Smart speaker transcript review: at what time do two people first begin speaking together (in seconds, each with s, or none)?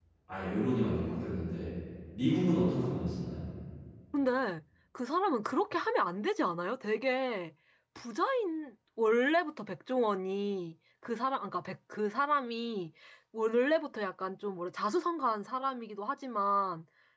none